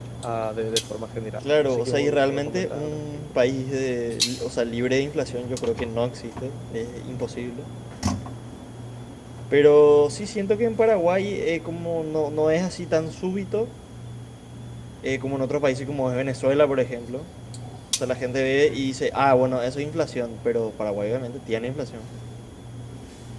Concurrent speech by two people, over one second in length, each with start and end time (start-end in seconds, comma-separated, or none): 1.4-3.2